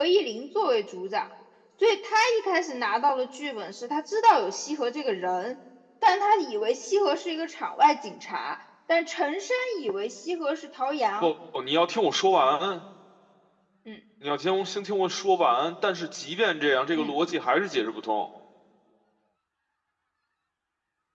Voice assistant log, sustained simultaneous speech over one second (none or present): none